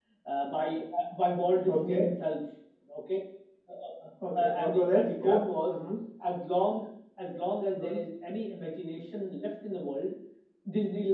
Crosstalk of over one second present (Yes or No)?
Yes